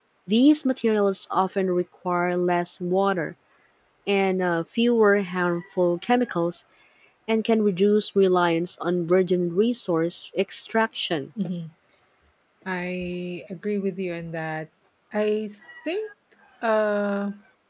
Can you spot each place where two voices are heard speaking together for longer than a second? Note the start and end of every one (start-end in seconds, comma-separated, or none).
none